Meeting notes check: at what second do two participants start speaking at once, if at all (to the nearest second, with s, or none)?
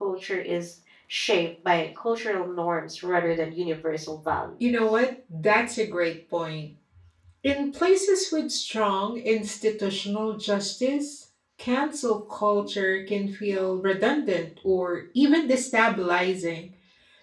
none